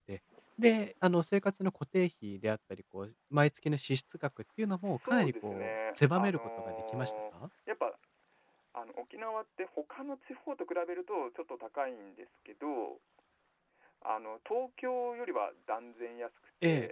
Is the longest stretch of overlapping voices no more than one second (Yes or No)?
No